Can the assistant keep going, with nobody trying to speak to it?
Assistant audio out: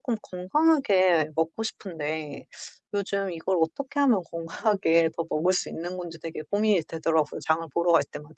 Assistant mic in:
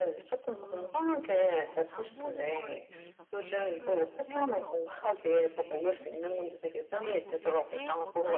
No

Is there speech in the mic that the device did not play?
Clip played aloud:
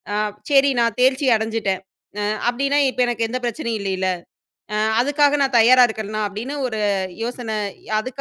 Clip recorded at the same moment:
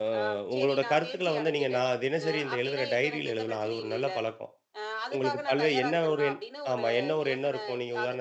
Yes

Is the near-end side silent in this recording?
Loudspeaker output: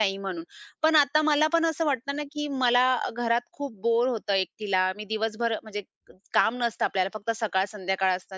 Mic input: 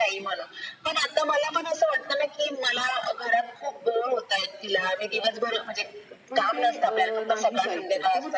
No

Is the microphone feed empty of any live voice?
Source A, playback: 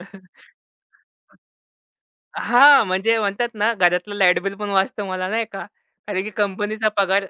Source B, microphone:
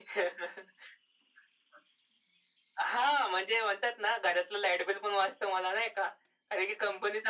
Yes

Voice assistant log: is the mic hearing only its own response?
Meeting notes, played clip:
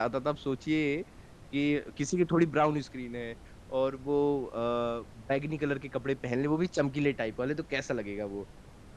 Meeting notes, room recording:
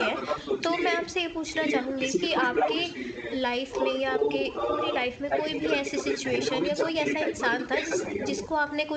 No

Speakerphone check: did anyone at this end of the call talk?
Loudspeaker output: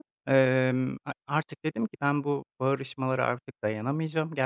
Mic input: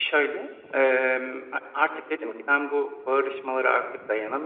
No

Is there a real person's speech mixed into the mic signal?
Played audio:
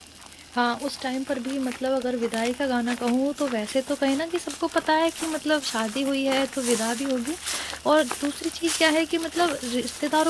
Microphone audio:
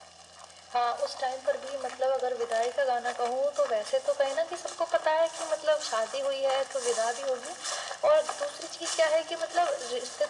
No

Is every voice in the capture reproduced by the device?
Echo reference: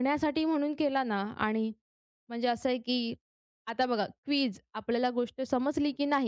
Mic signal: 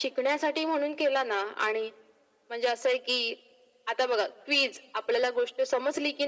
Yes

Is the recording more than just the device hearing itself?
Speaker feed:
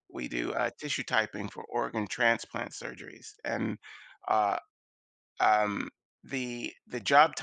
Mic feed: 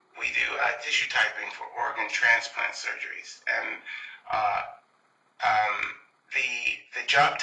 No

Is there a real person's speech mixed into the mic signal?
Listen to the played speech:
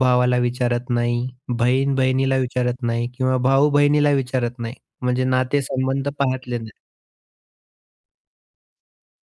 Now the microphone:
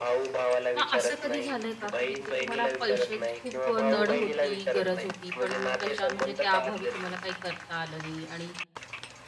Yes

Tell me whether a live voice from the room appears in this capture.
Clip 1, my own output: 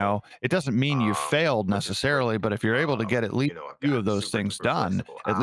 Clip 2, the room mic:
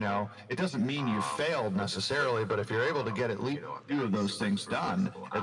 No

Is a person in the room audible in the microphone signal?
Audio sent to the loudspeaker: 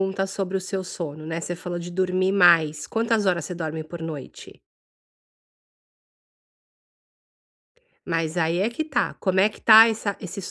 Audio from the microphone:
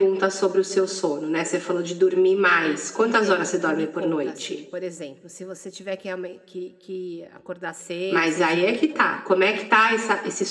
Yes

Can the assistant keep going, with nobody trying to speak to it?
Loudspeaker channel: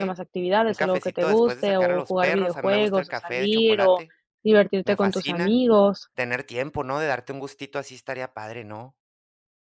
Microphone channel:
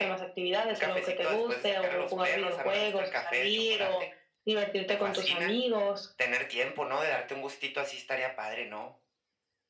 Yes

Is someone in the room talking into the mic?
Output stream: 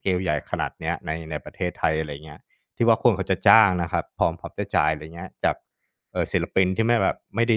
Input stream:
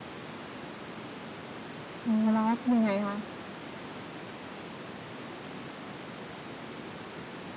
Yes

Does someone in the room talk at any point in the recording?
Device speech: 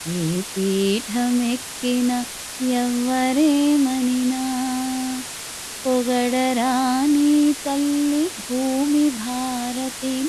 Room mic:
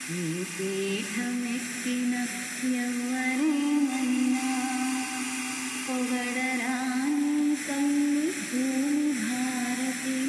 No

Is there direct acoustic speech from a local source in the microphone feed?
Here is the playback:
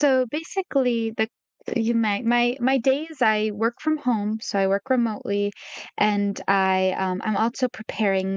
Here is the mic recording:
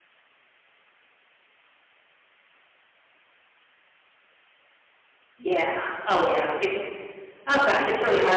Yes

